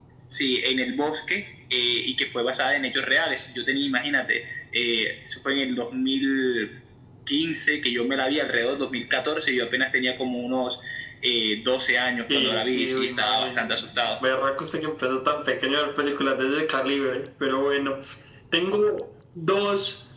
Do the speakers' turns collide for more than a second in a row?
Yes, from 12.3 s

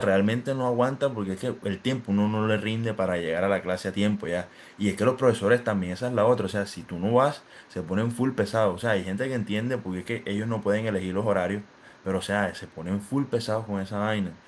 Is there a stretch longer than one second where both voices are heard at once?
No

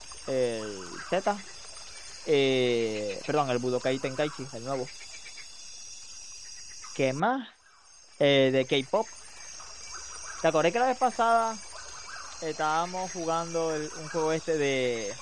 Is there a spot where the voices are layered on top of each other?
No

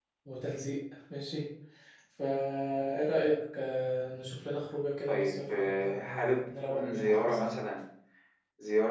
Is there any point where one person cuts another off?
Yes, from 5.1 s

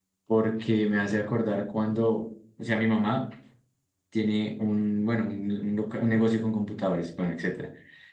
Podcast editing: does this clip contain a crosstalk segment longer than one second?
No

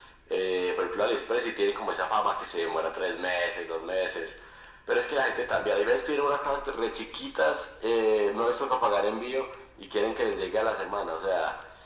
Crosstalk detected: No

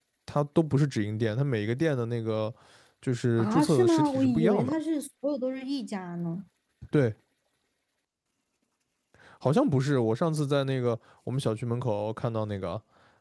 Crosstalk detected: Yes, from 3.4 s

